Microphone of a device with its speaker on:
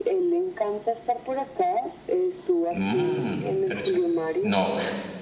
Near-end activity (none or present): present